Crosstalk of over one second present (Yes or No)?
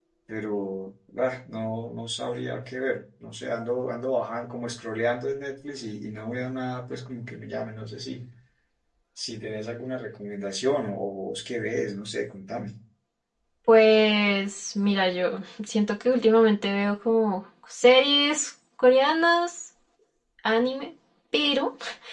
No